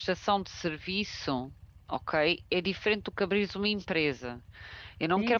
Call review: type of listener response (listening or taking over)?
taking over